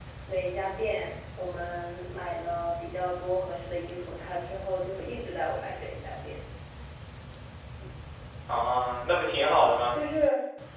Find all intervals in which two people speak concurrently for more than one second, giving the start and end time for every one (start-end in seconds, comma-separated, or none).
none